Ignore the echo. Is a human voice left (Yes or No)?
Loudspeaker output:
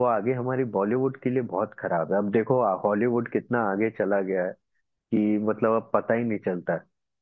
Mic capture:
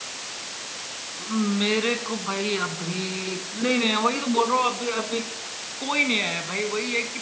Yes